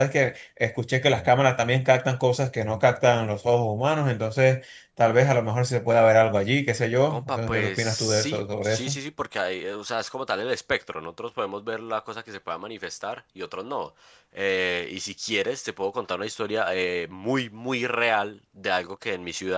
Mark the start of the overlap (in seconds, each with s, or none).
7.1 s